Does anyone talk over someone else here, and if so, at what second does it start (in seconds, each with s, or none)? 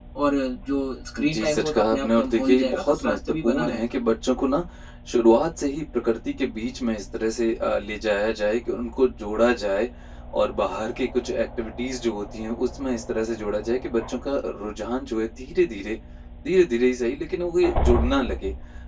1.2 s